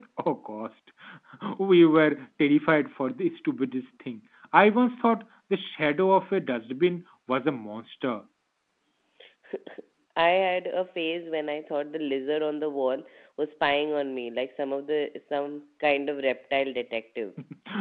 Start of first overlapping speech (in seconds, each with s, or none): none